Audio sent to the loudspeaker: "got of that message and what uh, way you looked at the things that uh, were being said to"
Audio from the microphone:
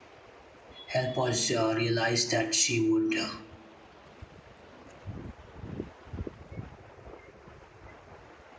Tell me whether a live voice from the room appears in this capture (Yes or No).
Yes